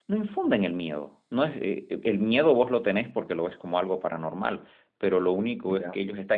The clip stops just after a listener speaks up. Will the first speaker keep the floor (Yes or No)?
Yes